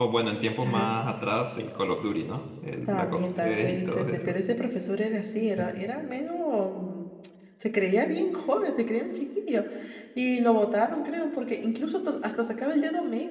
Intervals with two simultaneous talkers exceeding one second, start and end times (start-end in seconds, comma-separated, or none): 2.9-4.4